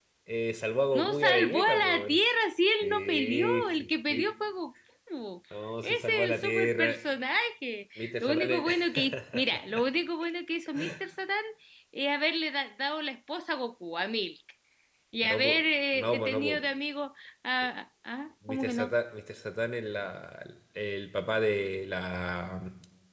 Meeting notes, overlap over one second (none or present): present